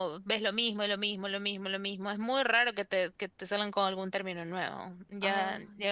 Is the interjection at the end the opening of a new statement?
No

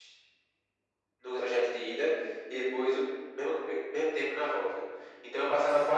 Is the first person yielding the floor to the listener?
No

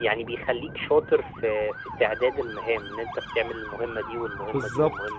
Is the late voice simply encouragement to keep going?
No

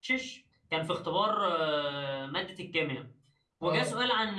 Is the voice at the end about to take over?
No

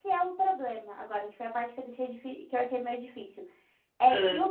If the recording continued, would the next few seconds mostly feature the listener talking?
No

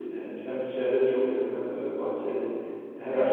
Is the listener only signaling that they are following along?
Yes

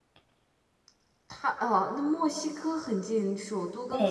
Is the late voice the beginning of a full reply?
Yes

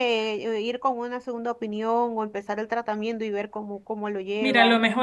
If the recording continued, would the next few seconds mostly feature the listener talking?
Yes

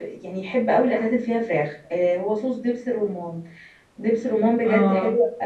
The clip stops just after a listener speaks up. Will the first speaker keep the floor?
Yes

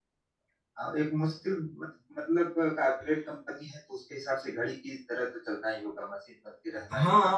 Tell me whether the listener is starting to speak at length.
Yes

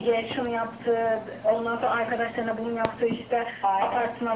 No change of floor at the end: Yes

